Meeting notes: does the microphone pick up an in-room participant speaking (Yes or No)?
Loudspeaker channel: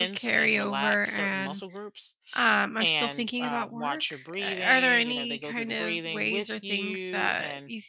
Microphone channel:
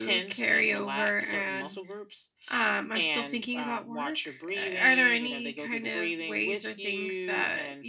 No